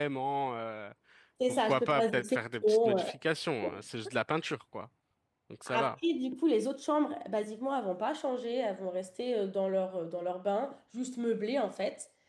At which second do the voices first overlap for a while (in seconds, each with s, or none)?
1.5 s